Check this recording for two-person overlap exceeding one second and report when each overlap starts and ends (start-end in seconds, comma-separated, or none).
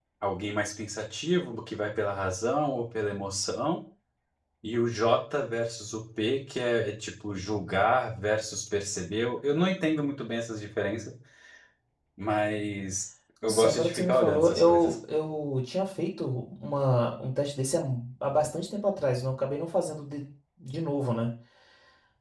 13.4-15.0